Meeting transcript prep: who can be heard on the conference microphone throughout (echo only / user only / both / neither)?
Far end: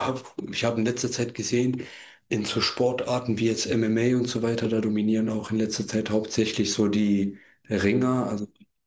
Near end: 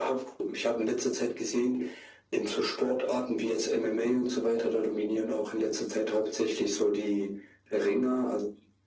echo only